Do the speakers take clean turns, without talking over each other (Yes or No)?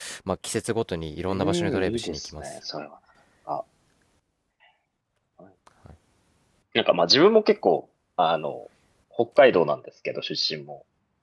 No